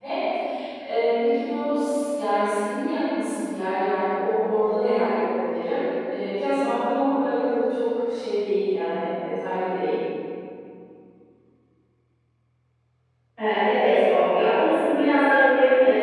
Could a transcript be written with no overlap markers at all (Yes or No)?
Yes